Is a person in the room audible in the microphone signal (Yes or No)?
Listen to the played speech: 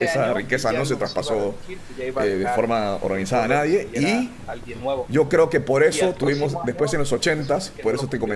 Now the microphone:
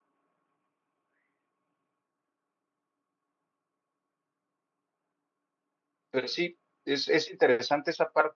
Yes